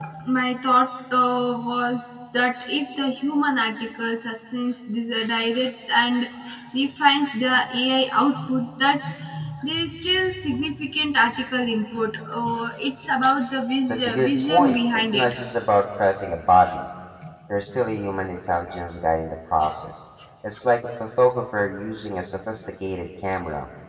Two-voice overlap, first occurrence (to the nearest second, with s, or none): 14 s